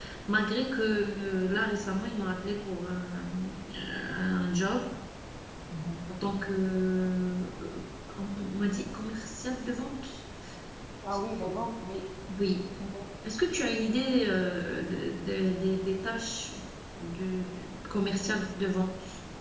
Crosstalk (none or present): none